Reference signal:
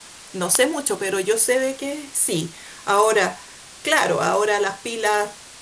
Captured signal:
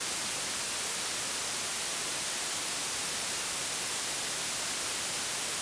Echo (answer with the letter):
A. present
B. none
B